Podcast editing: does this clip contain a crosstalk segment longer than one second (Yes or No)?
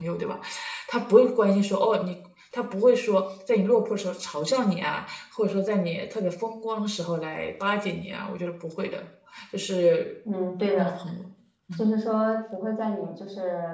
No